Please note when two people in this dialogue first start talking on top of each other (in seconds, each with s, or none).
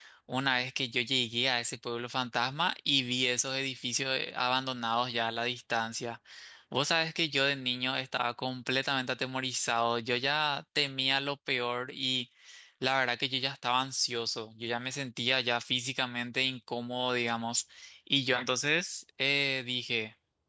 none